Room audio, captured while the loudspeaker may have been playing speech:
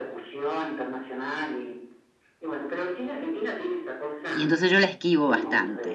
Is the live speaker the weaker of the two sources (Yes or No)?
No